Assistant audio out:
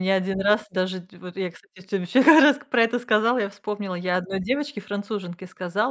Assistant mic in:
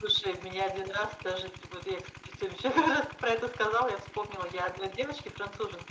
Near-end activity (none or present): none